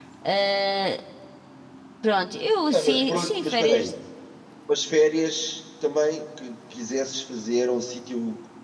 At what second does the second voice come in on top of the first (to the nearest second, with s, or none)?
3 s